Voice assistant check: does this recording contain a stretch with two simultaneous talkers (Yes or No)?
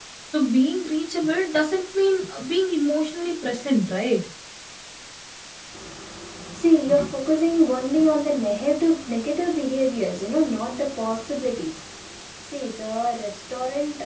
No